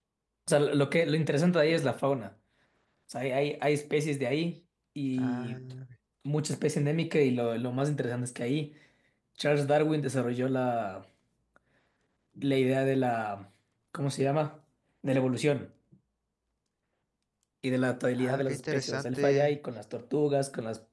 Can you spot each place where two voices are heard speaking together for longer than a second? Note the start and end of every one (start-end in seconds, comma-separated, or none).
18.2-19.6